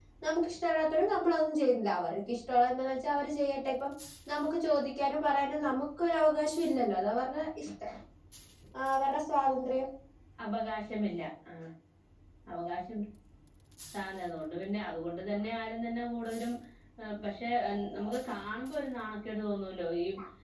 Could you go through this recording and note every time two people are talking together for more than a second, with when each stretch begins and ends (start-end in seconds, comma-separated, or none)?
none